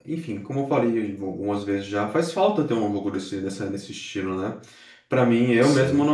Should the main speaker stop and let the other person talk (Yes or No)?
No